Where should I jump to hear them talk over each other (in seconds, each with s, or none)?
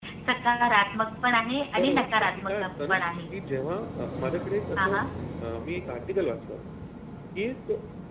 1.8 s